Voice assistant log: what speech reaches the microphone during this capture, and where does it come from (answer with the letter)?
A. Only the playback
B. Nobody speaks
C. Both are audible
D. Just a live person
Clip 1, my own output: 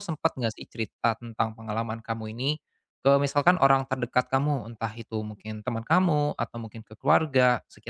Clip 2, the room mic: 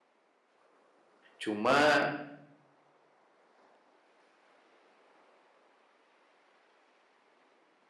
D